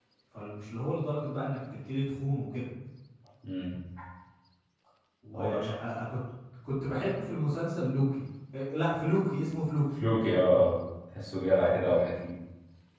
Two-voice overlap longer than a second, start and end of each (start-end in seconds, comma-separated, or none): none